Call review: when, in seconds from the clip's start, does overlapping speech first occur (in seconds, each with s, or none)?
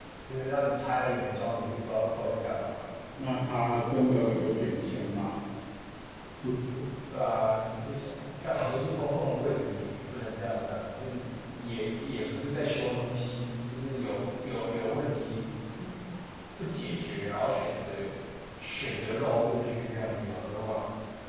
none